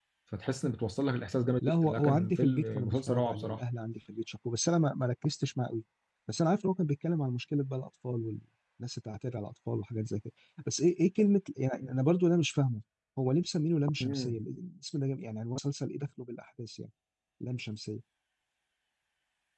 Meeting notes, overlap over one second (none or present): present